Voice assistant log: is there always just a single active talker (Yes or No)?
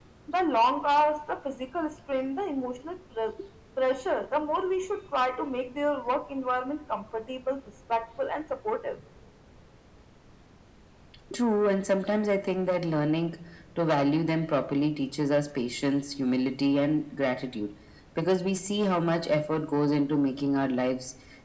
Yes